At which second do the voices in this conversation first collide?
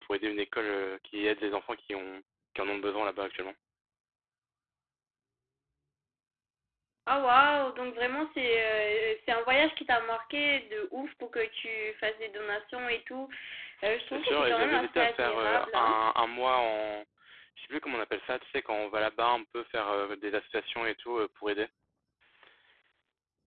14 s

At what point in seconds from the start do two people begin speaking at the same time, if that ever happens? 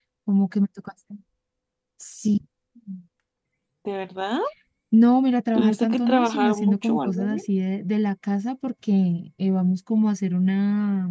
6 s

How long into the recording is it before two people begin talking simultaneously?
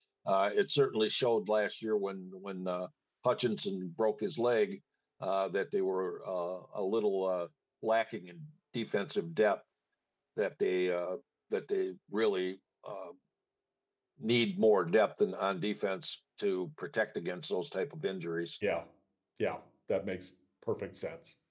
none

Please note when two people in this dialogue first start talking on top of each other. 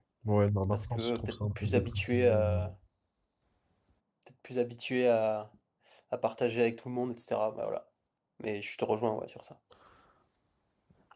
1 s

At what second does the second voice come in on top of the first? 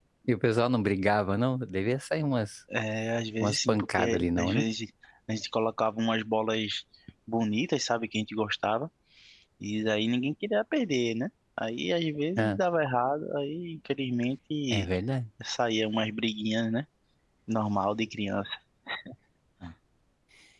3 s

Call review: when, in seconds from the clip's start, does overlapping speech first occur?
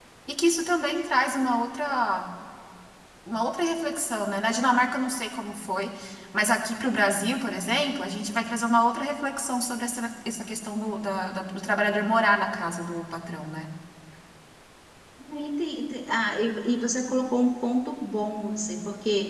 none

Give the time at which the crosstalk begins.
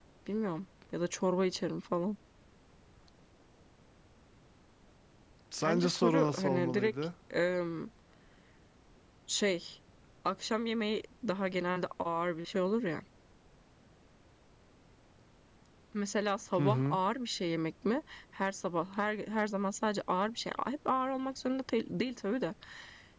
6 s

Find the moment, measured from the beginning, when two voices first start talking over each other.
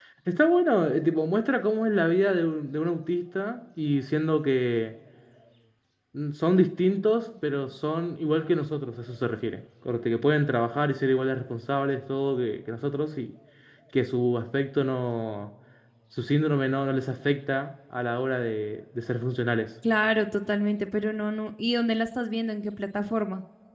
none

